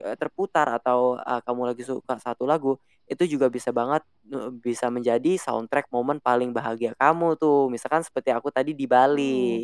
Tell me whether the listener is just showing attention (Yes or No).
No